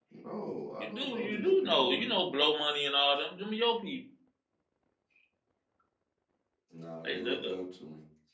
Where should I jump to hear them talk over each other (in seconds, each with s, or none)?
0.8 s